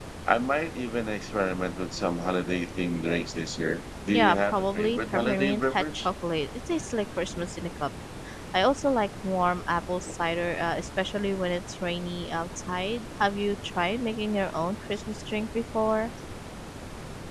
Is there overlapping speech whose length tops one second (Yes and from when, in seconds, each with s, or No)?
Yes, from 4.1 s